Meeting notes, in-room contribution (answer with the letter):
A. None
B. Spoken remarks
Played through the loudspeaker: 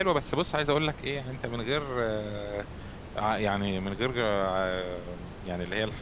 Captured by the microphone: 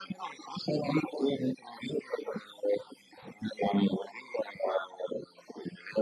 A